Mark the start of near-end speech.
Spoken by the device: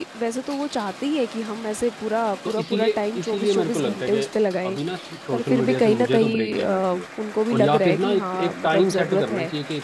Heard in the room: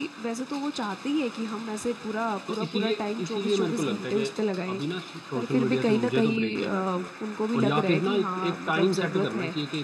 none

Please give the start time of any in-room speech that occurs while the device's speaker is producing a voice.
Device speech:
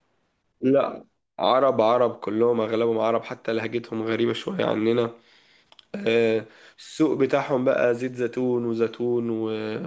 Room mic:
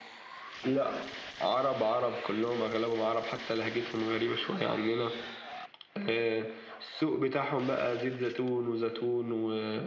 none

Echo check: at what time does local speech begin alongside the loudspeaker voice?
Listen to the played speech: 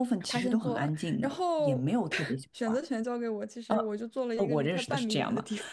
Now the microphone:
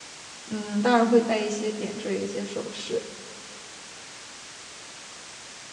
0.5 s

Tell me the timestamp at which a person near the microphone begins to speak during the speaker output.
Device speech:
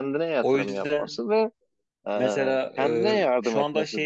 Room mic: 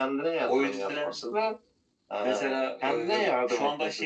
none

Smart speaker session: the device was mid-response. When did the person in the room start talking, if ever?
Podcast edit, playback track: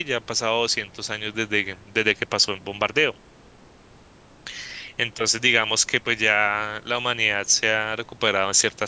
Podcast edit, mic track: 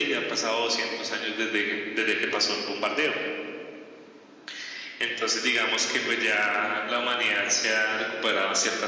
none

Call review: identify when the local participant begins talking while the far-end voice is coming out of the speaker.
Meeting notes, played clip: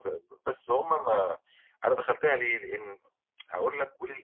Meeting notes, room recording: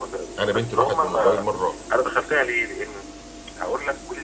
0.4 s

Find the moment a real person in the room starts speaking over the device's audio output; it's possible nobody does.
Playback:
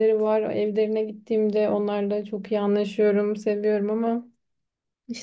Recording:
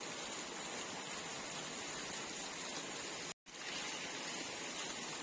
none

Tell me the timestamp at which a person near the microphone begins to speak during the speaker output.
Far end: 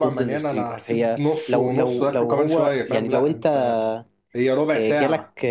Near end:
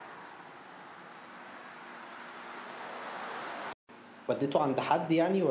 4.3 s

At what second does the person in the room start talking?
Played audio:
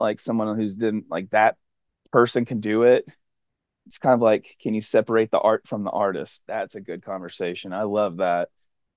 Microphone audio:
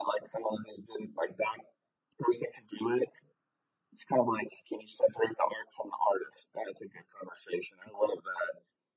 none

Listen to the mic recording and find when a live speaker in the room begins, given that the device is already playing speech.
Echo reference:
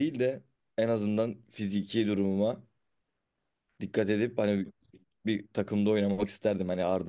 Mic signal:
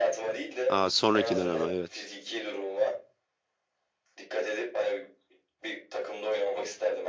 0.7 s

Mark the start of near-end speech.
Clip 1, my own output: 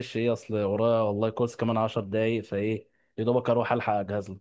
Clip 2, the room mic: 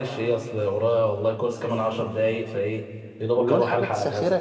3.3 s

